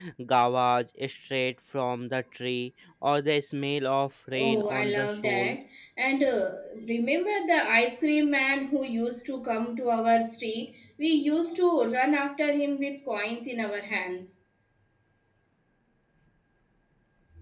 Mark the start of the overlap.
4.3 s

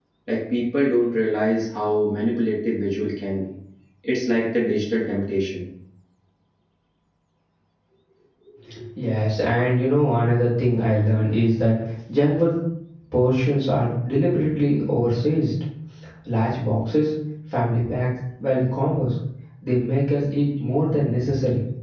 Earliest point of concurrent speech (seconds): none

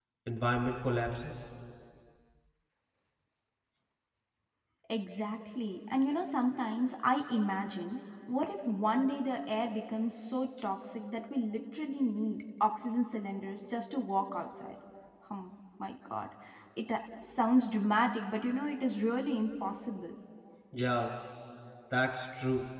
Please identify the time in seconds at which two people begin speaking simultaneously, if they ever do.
none

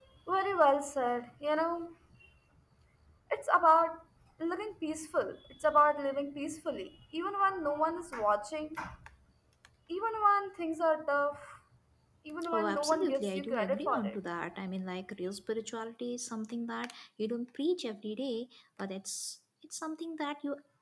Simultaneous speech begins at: 12.5 s

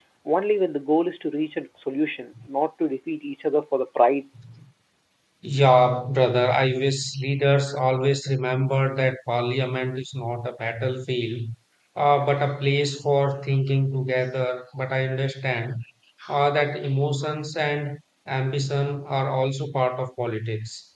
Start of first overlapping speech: none

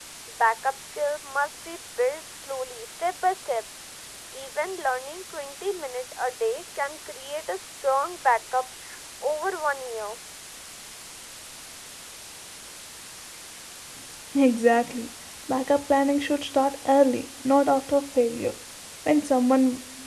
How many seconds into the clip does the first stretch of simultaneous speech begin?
none

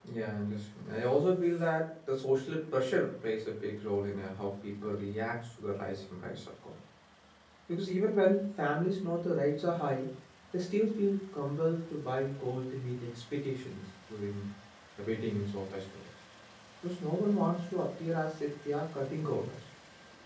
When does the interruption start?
none

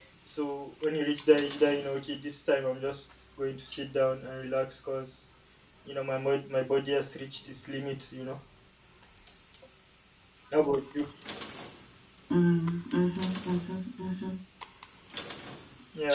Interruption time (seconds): none

